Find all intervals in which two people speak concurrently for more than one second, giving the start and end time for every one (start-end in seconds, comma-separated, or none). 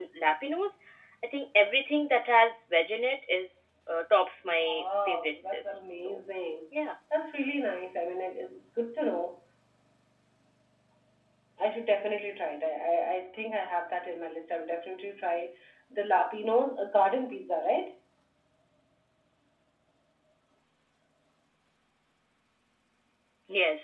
4.4-6.2